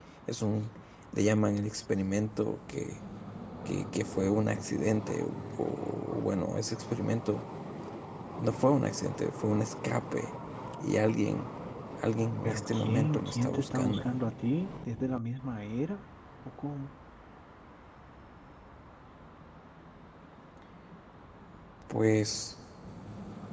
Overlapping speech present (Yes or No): Yes